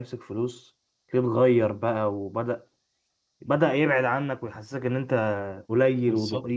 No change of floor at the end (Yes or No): No